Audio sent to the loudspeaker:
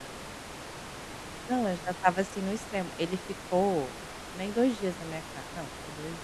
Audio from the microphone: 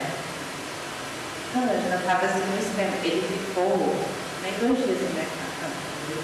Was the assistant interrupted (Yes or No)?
No